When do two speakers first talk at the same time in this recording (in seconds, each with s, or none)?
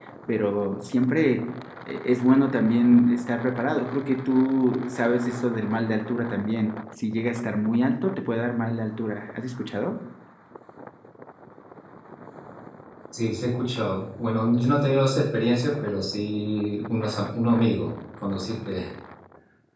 none